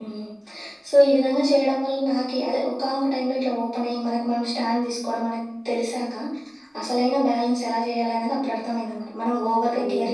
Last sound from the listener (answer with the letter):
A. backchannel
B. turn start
A